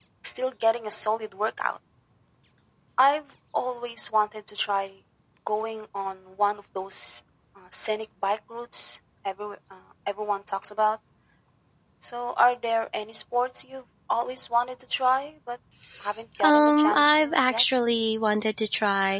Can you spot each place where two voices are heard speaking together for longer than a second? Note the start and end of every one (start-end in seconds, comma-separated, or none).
16.4-17.6